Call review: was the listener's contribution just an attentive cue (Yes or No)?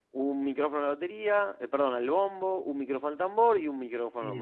No